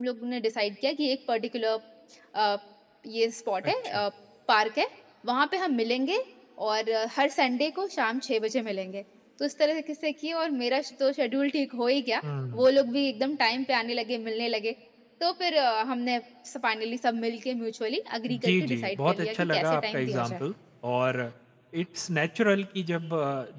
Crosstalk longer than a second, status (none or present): present